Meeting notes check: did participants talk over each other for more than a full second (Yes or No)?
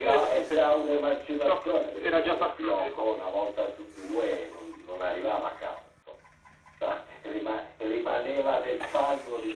Yes